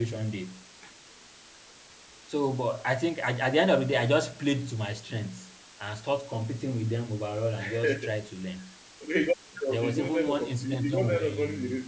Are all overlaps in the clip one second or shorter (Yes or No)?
No